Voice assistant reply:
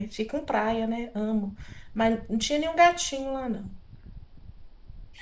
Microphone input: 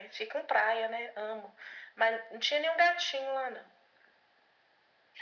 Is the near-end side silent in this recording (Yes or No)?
Yes